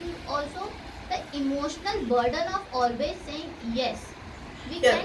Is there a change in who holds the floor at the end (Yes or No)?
Yes